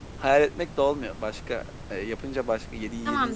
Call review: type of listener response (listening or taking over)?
listening